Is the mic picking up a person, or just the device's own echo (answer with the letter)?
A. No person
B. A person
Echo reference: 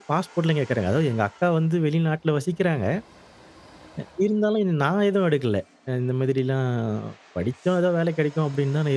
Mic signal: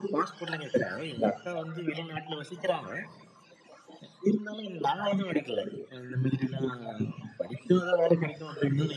A